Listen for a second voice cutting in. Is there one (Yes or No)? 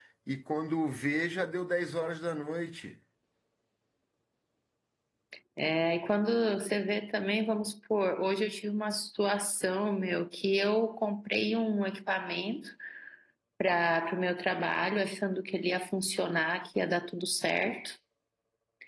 No